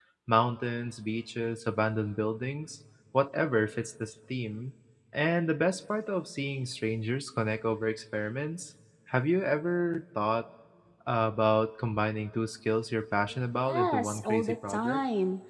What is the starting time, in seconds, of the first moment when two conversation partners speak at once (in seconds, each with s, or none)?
13.3 s